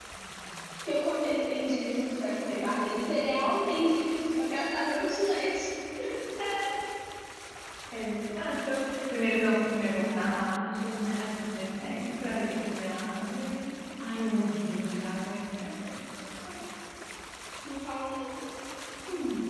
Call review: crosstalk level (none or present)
none